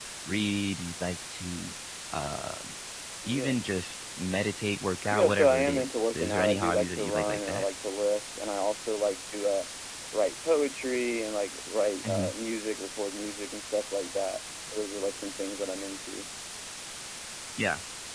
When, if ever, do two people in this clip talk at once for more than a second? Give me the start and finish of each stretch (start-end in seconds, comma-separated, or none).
5.1-7.6